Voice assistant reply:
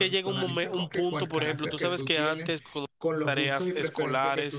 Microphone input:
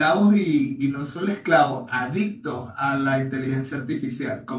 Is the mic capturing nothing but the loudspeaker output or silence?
No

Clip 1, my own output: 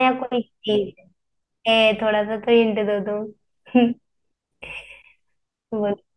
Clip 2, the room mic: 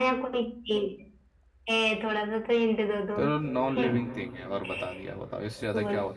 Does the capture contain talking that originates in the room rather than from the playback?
Yes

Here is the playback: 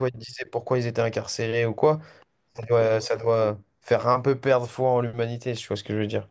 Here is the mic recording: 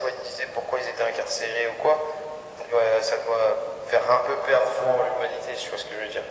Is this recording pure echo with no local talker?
Yes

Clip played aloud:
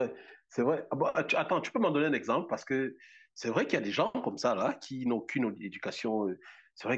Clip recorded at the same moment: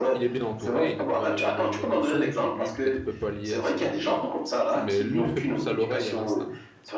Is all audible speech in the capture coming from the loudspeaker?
No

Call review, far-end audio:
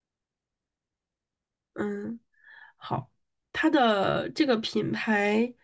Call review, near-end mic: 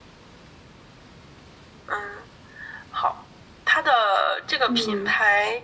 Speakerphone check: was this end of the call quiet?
No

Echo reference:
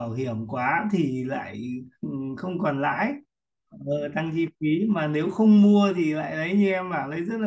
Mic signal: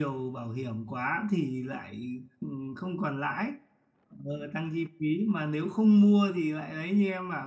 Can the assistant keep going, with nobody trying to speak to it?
Yes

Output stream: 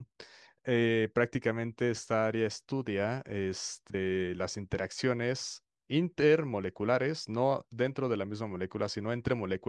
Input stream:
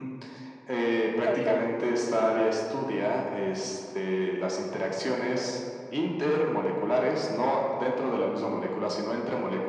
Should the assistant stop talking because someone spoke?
Yes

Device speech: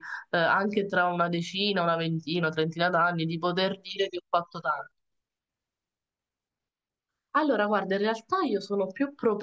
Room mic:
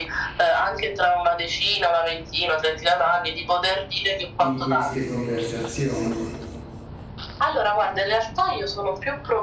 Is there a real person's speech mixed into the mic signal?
Yes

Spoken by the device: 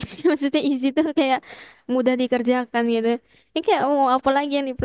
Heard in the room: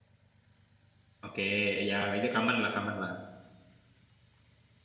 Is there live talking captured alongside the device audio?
Yes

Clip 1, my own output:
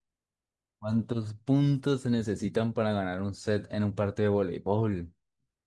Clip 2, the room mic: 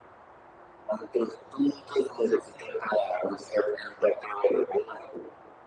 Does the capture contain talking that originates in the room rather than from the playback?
No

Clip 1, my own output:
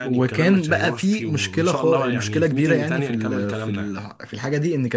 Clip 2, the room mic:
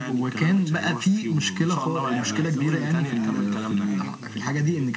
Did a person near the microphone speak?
Yes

